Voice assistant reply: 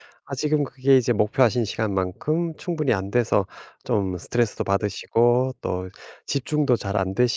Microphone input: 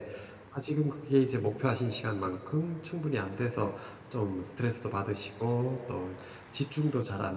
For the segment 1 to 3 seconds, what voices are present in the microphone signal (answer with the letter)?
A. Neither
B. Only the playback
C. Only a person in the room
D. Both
B